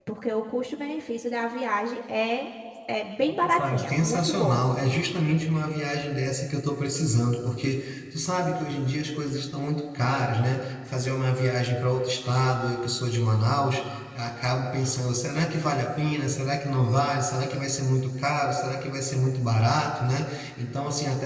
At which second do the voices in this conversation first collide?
3 s

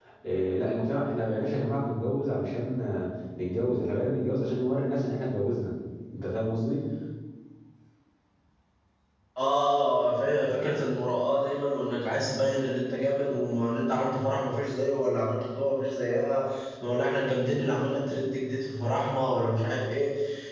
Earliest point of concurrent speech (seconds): none

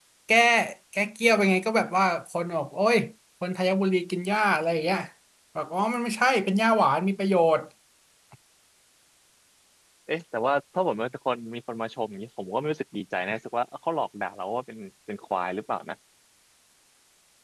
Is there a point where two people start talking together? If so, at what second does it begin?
none

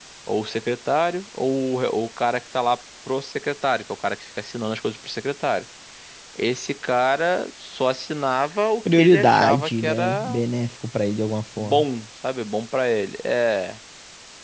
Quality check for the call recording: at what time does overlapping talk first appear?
9 s

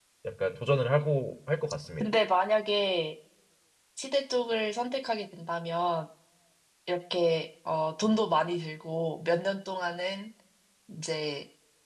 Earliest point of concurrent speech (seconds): none

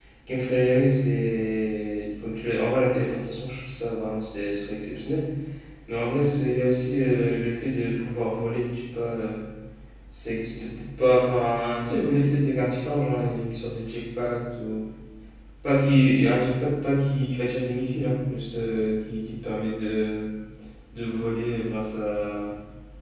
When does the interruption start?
none

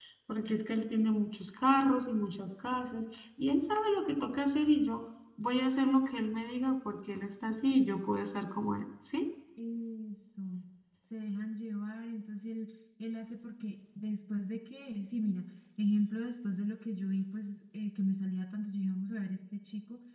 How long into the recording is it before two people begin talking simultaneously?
none

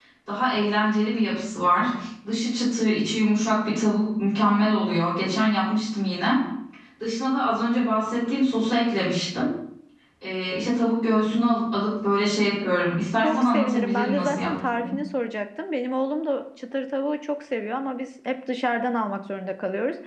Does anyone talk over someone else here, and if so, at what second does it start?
13 s

